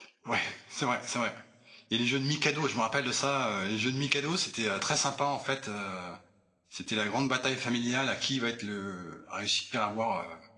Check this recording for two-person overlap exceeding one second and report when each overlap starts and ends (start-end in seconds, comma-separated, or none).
none